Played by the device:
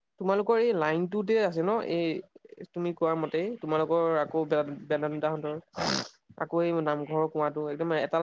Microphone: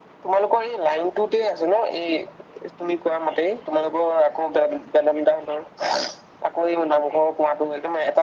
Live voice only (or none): none